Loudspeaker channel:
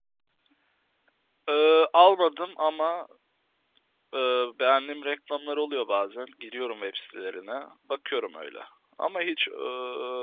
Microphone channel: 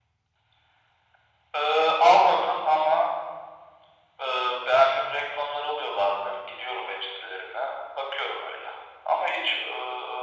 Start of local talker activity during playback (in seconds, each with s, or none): none